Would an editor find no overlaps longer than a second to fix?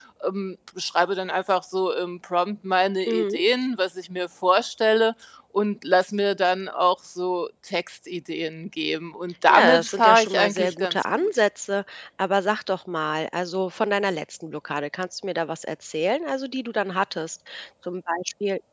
No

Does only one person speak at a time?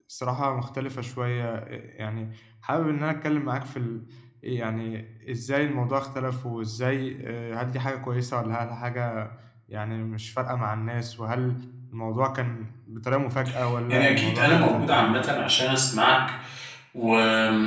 No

